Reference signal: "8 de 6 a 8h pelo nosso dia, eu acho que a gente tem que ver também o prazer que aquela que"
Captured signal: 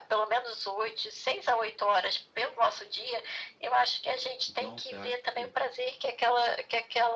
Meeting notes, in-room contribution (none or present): present